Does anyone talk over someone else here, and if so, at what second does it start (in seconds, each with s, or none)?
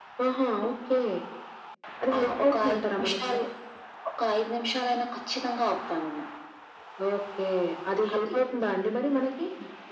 2.1 s